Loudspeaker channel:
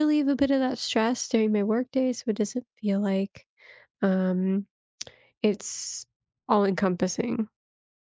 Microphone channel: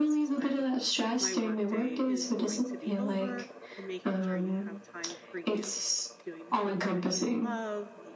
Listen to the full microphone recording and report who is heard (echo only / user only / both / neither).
both